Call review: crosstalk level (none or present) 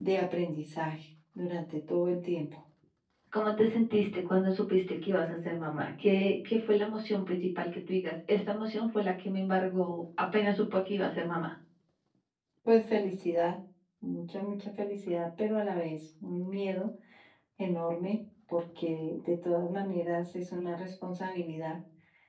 none